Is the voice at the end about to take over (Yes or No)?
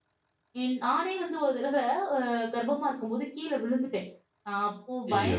No